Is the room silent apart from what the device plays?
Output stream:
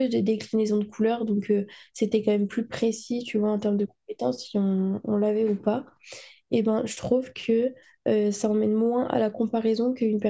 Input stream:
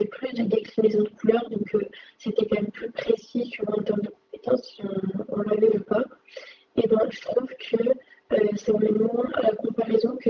Yes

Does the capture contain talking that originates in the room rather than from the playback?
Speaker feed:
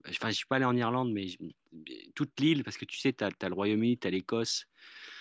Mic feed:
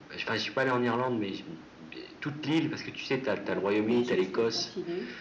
Yes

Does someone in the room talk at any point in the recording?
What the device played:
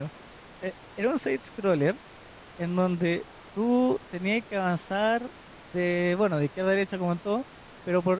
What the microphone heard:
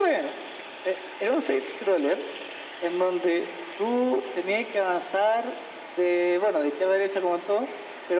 No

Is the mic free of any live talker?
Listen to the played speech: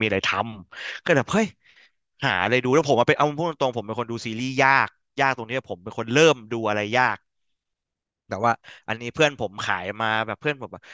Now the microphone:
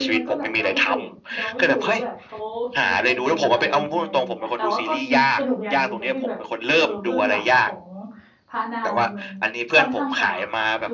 No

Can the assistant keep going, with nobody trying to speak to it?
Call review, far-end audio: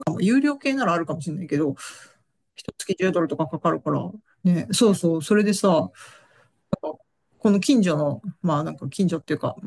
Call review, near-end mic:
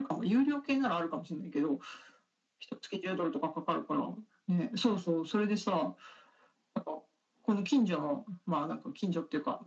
Yes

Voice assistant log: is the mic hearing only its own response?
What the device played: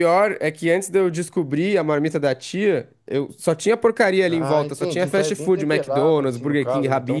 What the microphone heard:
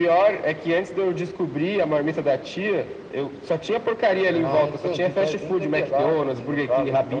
No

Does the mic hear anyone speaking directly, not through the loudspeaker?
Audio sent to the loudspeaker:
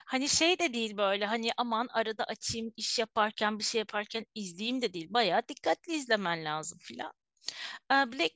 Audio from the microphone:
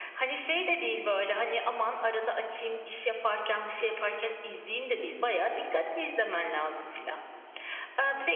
No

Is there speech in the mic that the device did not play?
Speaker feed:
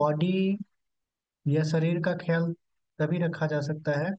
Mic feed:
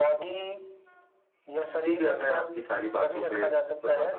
Yes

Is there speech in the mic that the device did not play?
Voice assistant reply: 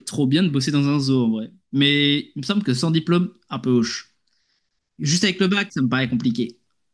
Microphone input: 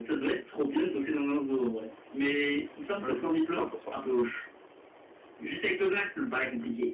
Yes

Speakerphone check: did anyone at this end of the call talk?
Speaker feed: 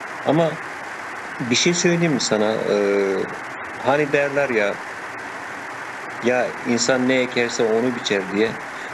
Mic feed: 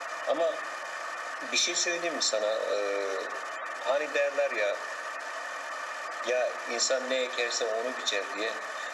No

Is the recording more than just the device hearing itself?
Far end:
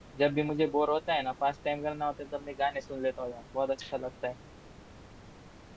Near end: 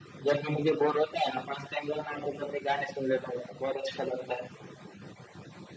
No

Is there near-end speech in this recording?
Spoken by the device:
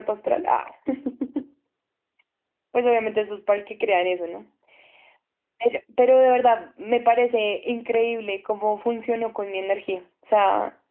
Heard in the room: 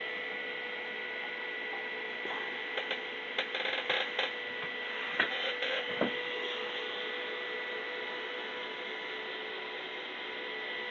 No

